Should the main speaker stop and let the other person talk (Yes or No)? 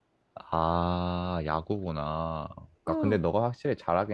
No